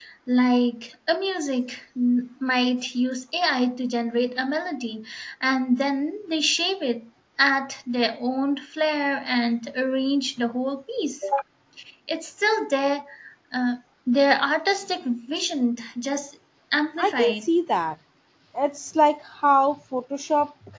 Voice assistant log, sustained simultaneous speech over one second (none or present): none